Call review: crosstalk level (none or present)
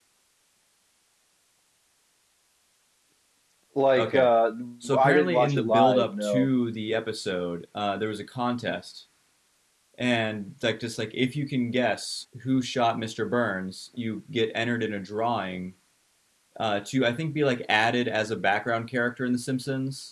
present